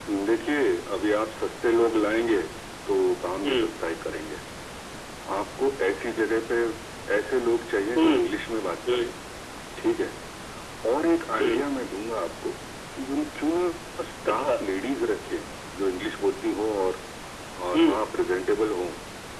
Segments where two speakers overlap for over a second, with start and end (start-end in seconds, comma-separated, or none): none